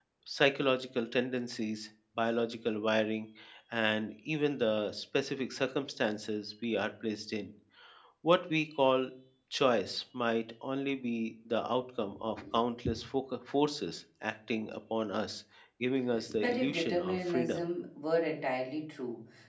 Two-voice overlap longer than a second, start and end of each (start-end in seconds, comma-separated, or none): 16.4-17.6